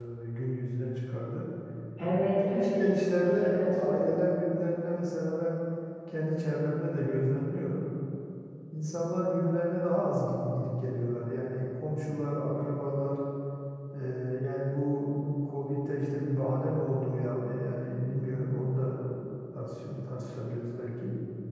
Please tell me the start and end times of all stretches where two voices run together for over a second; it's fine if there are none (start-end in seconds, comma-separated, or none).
2.5-4.2